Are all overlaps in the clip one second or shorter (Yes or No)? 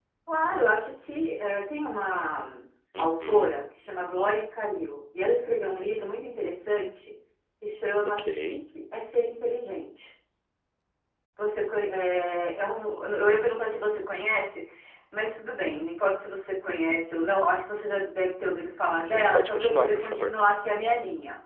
No